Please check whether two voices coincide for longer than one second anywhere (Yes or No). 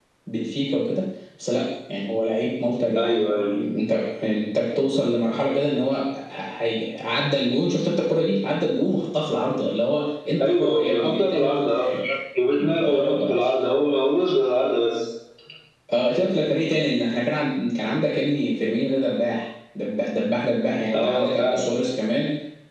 Yes